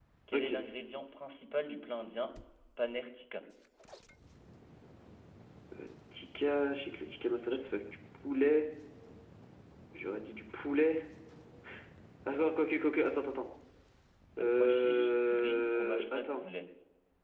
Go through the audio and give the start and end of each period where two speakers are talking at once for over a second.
14.4-16.4

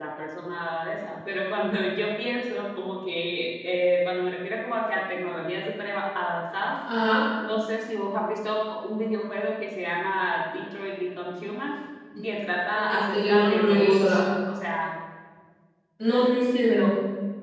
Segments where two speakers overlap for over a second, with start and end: 12.9-14.2

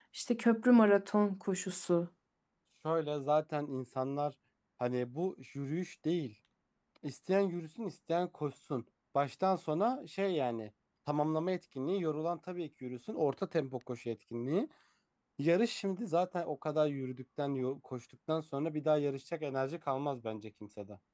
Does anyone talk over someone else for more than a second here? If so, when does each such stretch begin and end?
none

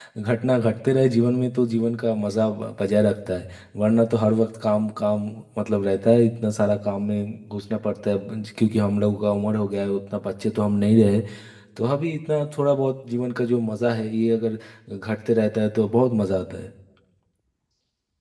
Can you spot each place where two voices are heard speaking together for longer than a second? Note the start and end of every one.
none

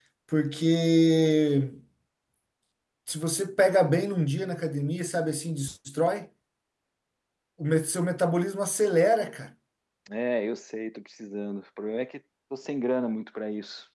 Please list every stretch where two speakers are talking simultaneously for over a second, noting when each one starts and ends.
none

